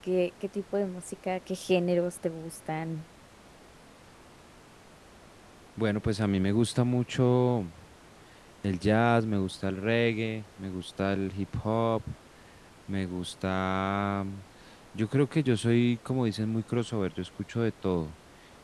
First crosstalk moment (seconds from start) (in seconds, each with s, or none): none